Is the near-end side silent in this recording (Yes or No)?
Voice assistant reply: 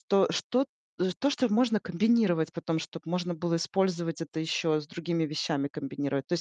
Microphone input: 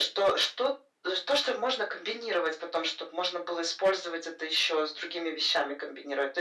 Yes